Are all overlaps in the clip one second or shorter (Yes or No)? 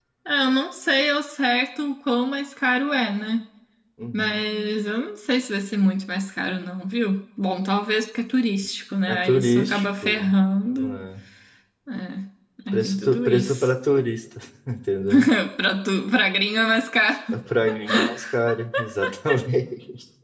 No